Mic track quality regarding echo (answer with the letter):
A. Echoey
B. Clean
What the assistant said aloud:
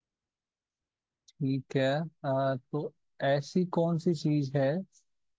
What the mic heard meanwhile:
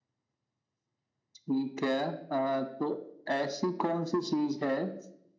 A